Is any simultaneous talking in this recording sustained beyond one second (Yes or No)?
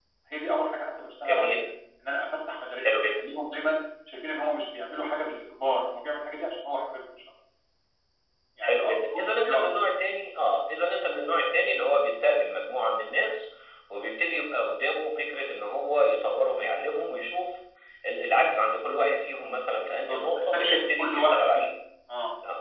Yes